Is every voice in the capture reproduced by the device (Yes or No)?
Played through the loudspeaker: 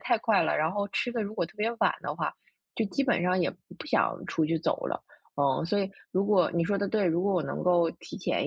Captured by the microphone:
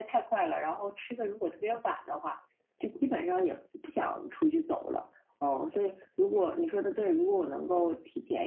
Yes